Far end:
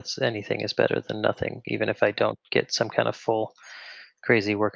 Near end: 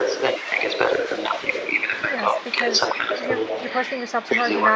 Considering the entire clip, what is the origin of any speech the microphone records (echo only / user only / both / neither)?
both